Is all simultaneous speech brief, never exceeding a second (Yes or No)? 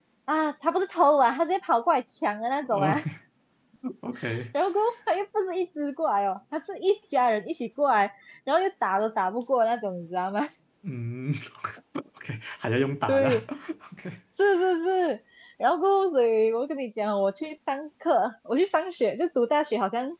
Yes